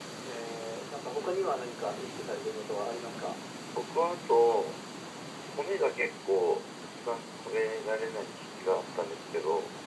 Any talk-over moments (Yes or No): No